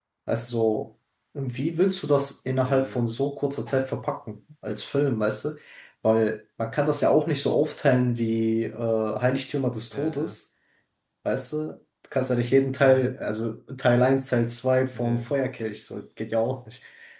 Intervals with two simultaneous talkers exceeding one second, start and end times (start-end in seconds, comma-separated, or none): none